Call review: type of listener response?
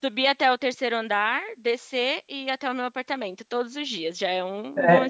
taking over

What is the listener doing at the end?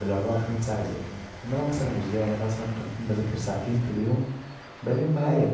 listening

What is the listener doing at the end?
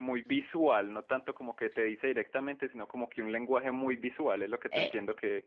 taking over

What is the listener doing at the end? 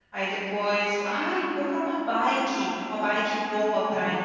listening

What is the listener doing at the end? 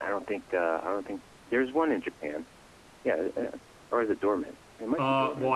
taking over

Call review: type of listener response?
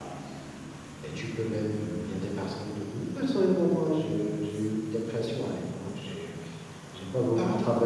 listening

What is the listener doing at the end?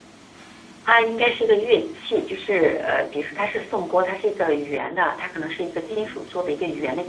listening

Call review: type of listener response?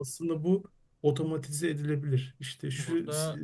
listening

